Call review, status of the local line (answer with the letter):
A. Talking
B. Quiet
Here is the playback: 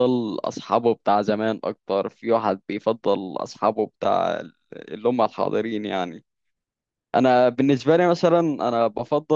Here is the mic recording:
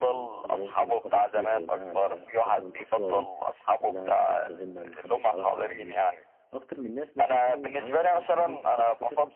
A